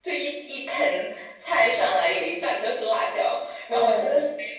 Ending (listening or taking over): listening